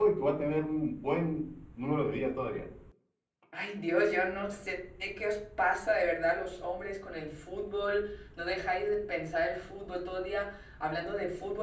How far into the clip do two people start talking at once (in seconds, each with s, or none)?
none